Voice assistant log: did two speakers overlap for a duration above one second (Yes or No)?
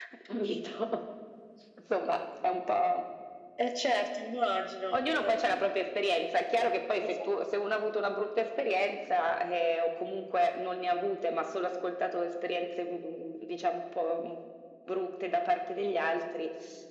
No